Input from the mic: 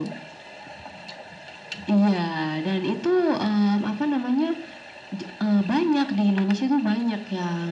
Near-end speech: none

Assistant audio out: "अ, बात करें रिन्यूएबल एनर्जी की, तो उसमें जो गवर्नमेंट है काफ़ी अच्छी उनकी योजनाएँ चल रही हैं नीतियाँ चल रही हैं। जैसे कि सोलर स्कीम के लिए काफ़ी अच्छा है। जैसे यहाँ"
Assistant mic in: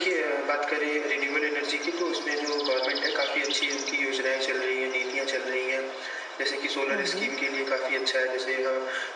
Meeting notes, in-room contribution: present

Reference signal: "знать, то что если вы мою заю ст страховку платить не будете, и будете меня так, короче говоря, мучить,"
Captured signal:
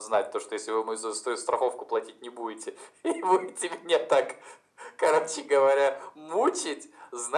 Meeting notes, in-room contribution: none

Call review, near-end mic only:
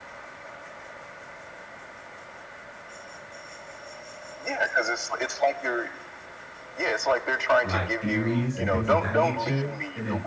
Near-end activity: present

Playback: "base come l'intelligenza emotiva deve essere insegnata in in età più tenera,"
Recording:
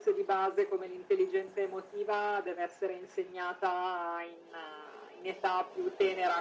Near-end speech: none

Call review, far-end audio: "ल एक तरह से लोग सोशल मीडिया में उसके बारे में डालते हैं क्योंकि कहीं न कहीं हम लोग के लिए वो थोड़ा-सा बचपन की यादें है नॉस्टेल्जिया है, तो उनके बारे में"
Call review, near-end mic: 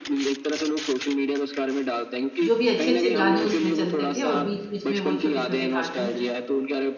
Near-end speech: present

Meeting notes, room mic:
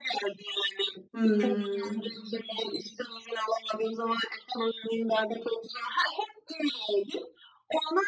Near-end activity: present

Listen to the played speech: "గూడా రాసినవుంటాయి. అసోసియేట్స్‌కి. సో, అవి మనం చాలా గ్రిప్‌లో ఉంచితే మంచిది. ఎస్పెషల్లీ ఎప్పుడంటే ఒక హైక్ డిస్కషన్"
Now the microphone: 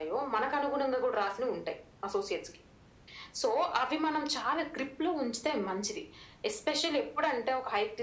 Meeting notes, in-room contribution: none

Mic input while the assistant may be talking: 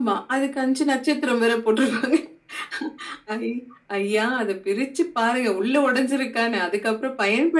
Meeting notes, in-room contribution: none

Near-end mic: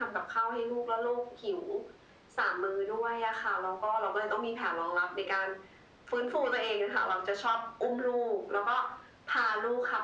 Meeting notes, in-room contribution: none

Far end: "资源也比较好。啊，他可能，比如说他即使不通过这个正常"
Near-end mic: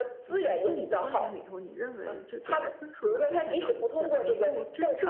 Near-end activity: present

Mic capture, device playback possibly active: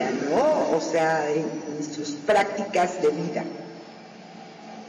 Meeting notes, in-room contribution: none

